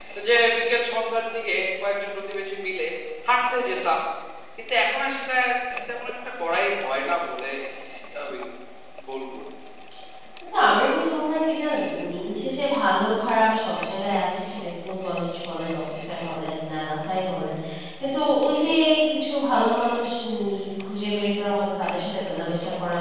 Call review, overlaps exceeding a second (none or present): none